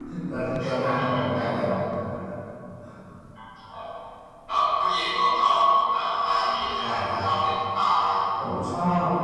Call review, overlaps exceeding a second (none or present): none